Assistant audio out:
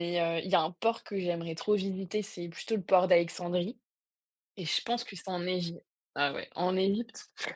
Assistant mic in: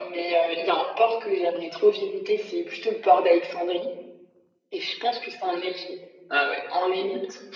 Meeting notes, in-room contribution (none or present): none